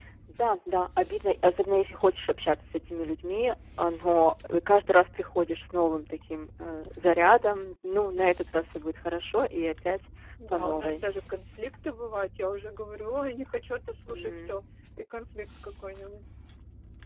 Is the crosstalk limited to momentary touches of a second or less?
Yes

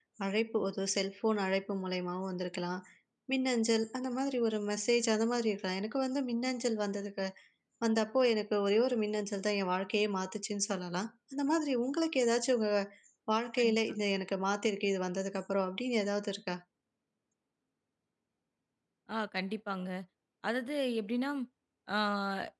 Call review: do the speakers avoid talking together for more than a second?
Yes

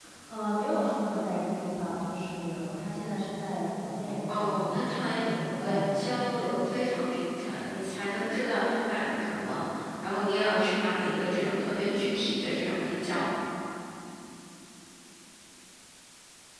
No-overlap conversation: No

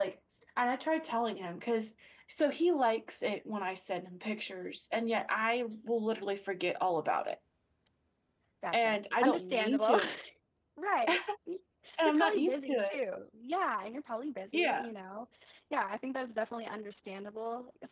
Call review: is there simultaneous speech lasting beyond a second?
Yes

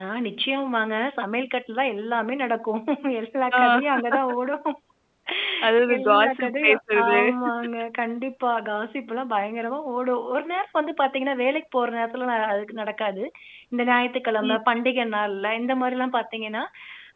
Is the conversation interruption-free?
No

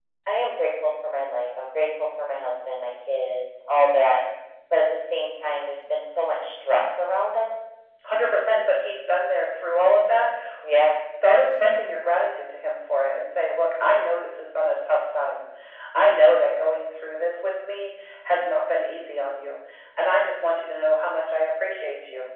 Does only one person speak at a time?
Yes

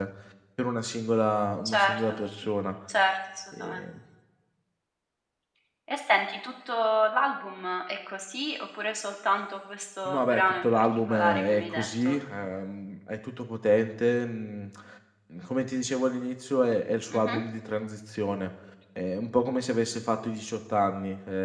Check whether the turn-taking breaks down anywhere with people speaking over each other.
Yes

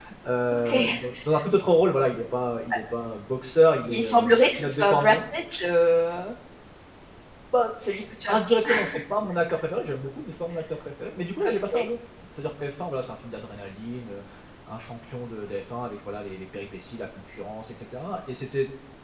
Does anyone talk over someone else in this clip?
Yes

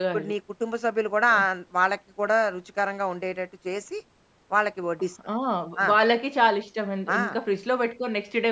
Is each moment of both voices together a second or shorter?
Yes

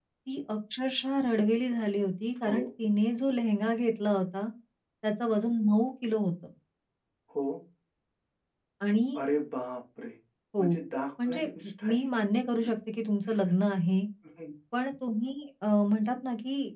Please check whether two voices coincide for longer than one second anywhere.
No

